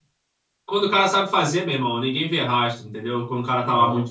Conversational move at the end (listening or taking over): listening